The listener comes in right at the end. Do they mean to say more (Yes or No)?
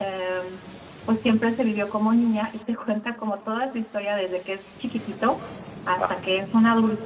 No